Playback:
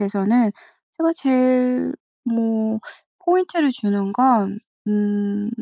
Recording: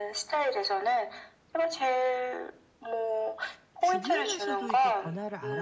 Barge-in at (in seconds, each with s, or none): 3.8 s